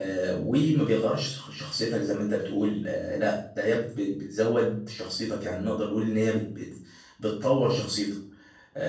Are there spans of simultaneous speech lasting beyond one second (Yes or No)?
No